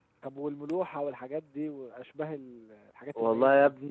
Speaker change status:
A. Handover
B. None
A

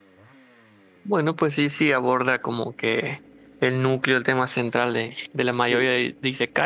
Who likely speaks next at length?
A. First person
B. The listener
A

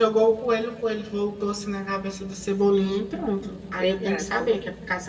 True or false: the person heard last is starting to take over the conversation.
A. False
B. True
A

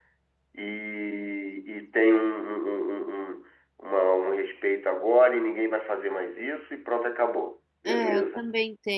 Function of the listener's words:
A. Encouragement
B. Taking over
B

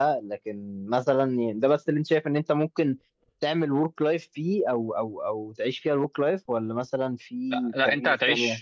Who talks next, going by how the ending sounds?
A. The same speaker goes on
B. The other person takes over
B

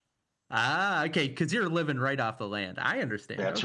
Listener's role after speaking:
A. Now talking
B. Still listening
A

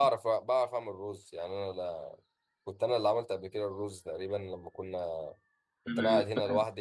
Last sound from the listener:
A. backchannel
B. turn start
A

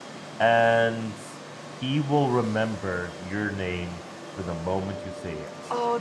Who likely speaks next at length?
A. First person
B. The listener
B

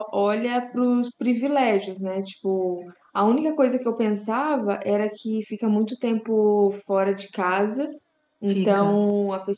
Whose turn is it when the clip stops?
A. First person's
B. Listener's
A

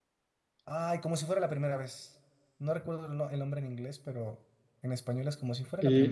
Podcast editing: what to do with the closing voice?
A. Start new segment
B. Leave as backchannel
A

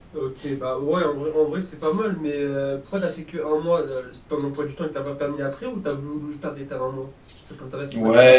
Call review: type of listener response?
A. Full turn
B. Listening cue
A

